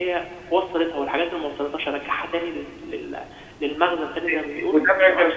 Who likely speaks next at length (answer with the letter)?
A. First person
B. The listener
B